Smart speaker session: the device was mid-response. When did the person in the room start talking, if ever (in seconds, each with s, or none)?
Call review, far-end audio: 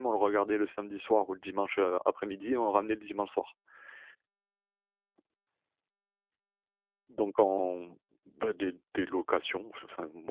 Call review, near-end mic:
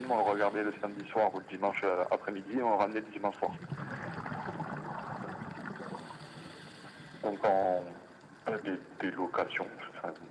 none